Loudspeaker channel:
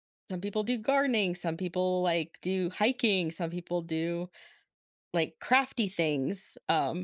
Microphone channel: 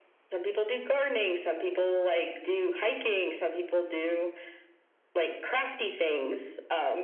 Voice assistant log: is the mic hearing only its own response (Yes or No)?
Yes